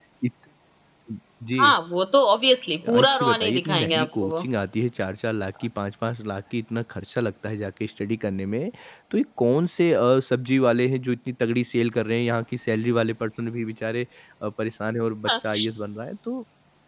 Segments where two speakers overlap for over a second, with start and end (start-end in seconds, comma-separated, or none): 2.9-4.5